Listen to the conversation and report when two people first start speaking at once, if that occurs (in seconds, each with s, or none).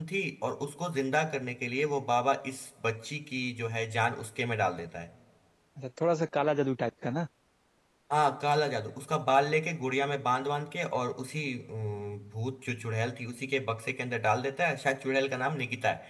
none